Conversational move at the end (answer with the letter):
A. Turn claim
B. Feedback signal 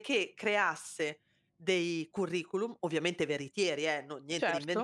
B